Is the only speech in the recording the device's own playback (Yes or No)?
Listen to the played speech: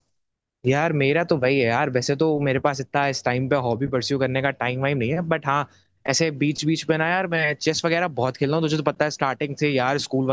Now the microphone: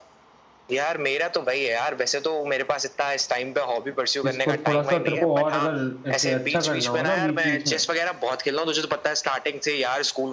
No